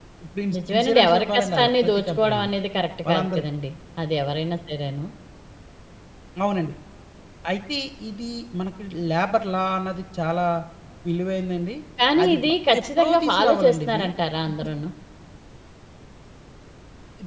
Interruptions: present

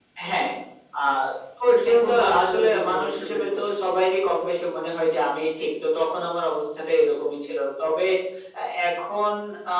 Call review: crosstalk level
present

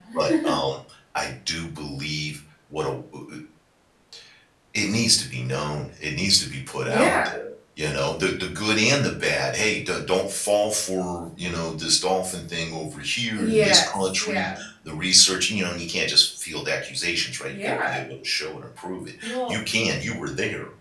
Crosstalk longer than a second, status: present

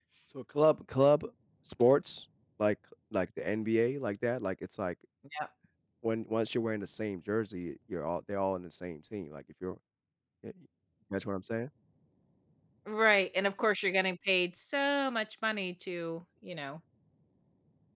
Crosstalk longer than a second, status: none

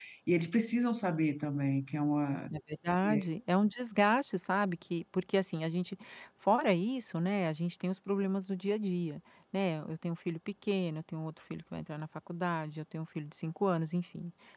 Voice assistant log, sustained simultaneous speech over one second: none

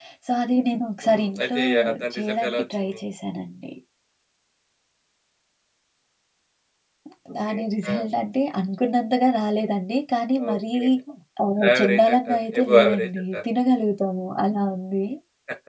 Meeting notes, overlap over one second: present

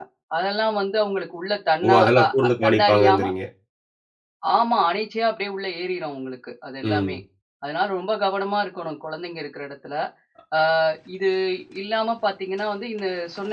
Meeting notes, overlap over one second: present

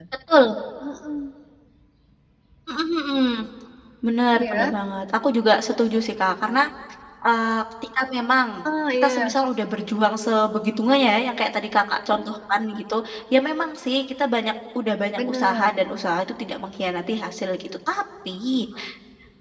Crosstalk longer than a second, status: none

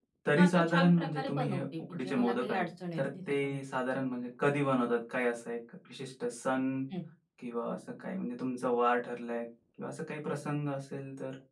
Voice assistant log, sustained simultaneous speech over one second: present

